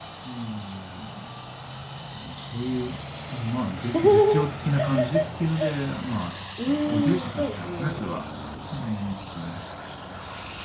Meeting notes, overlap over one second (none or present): present